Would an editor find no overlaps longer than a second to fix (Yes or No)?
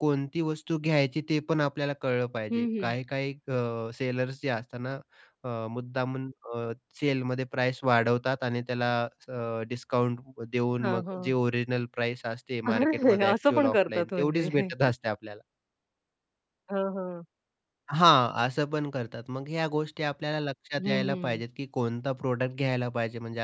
No